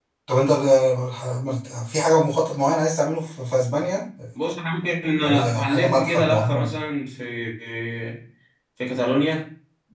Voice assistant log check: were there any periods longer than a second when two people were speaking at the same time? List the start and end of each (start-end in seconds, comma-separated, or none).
5.2-6.7